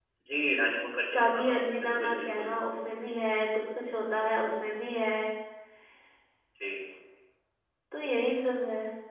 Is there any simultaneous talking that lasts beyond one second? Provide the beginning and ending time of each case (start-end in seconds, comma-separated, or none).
1.1-2.5